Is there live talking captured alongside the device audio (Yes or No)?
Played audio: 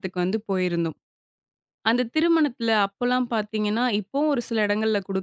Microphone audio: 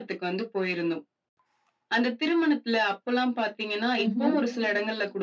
Yes